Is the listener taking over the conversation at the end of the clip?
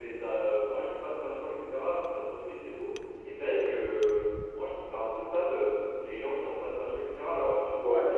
No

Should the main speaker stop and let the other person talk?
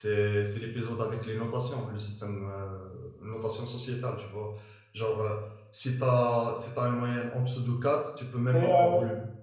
Yes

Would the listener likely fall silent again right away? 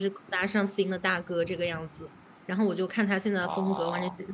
Yes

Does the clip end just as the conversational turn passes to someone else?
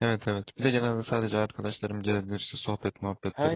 Yes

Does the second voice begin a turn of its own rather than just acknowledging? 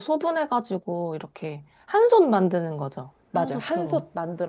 Yes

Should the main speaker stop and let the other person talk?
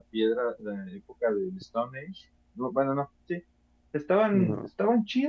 No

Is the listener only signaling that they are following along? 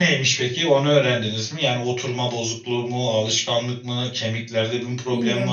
No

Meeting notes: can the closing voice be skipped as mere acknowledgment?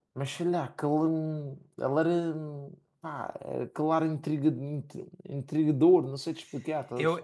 No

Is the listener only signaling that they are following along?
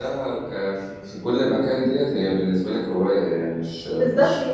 No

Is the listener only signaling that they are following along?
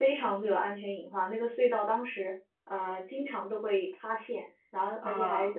Yes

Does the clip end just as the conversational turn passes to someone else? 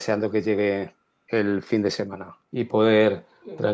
No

